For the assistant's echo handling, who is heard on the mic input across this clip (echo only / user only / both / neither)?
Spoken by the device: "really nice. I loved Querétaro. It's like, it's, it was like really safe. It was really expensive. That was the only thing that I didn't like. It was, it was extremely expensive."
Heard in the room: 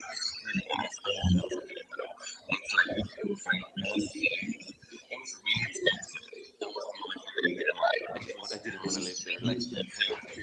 both